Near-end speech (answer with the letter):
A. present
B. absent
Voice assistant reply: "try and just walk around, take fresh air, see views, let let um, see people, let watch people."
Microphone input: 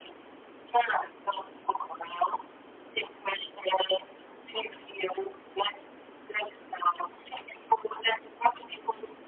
B